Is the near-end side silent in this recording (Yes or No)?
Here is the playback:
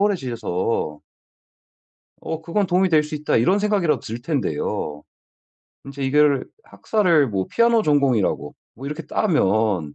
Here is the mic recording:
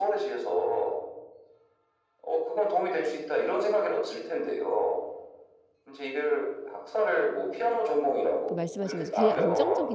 No